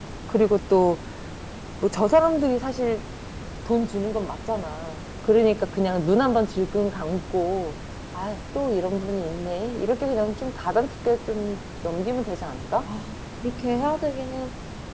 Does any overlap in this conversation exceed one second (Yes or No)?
No